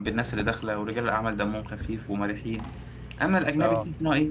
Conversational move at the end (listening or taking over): listening